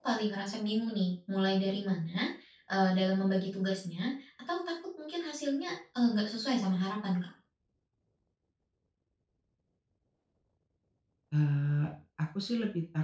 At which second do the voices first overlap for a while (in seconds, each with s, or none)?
none